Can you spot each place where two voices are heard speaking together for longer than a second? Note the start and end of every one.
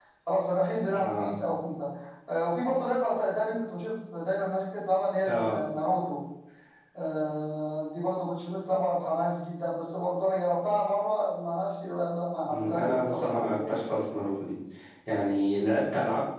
12.5-13.8

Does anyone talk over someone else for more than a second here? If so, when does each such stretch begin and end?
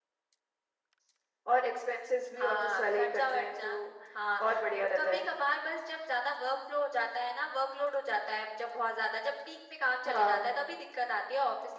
2.4-3.8

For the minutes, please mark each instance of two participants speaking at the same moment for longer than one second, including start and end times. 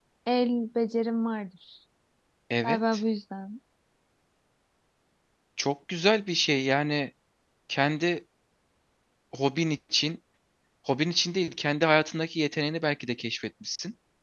none

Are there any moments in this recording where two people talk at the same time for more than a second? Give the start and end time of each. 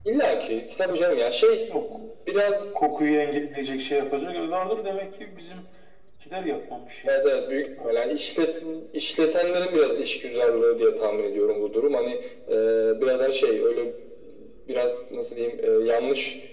none

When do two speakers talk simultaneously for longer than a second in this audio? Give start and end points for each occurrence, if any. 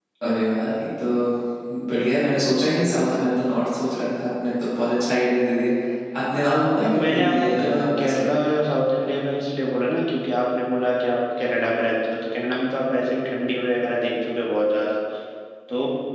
6.4-8.3

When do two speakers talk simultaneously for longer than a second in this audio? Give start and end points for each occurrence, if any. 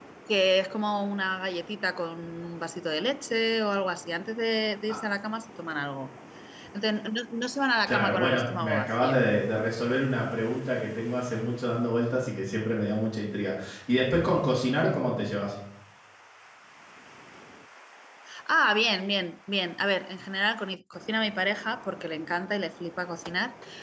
7.9-9.2

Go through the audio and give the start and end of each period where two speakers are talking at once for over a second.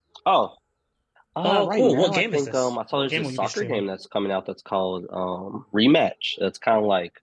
1.4-3.8

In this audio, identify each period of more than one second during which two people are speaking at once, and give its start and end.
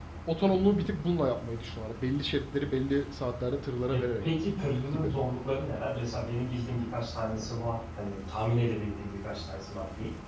none

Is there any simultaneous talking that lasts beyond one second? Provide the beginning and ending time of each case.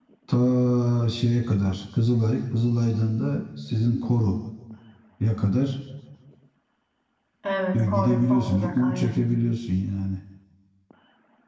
7.7-9.1

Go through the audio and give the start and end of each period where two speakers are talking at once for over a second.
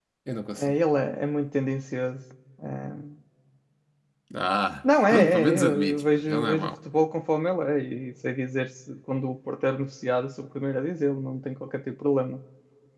5.1-6.7

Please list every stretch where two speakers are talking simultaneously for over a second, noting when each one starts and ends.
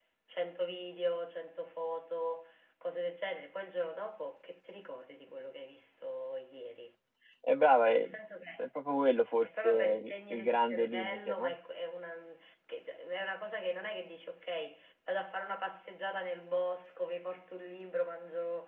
9.4-11.6

